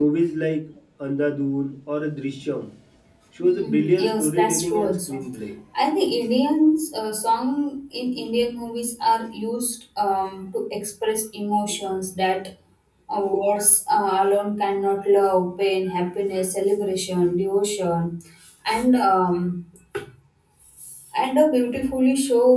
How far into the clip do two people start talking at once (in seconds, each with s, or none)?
3.4 s